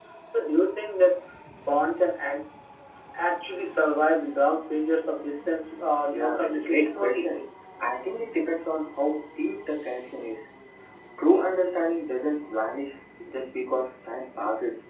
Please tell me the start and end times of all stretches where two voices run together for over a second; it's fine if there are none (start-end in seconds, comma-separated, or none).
6.1-7.4